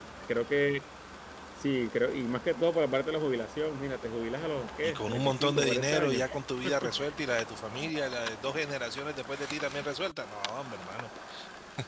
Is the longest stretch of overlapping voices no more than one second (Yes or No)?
No